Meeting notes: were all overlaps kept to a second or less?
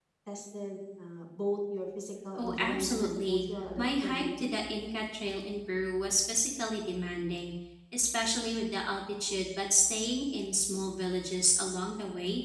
No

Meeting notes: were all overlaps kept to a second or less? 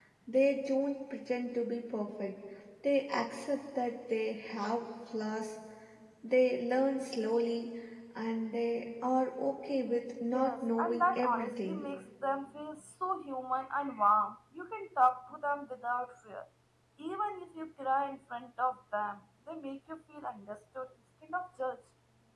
No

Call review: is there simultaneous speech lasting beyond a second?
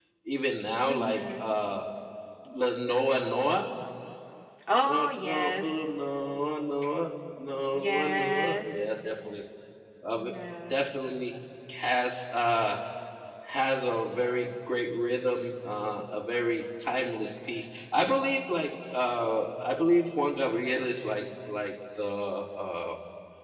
Yes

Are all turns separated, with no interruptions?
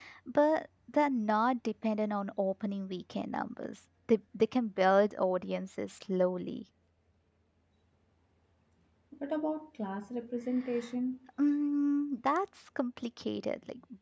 Yes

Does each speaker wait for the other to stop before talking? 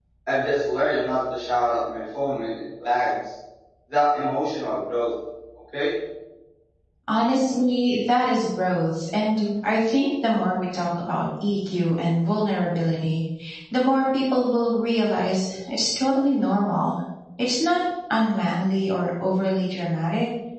Yes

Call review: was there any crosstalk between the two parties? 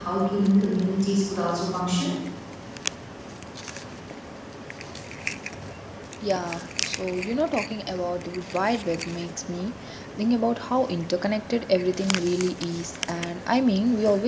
No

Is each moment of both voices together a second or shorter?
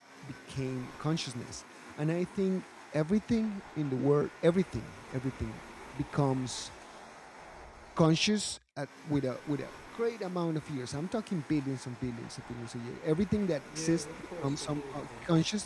No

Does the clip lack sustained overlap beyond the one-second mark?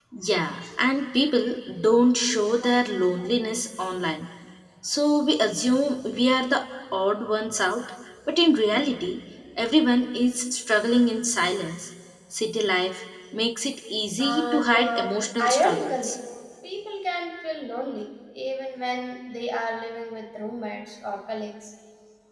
No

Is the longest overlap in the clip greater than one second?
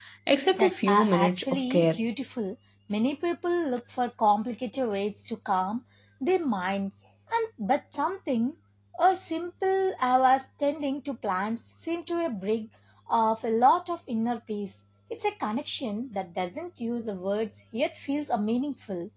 Yes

